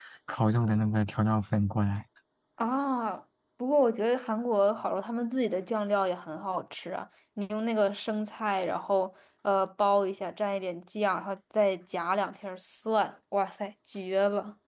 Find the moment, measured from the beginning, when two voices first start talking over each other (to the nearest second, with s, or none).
none